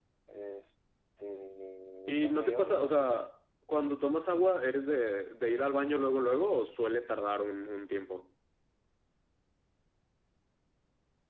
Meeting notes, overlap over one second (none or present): present